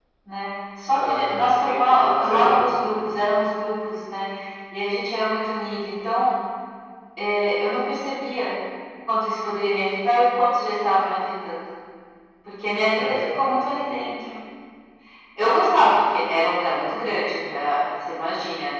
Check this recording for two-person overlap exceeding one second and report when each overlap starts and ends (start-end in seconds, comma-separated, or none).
0.9-2.8